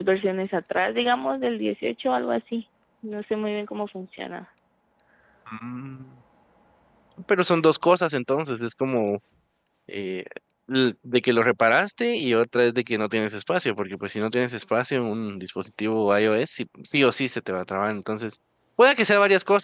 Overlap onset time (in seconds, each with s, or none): none